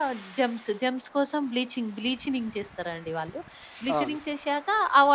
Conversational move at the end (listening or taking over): listening